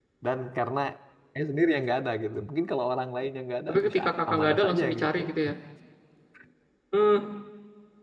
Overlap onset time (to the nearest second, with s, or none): 4 s